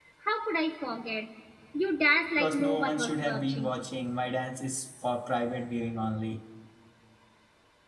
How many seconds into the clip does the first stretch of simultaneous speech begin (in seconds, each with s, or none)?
2.4 s